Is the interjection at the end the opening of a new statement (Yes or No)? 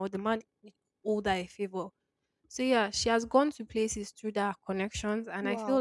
No